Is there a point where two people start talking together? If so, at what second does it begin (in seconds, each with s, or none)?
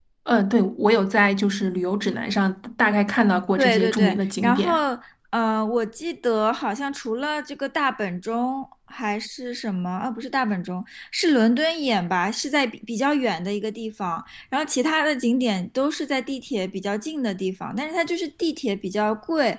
3.6 s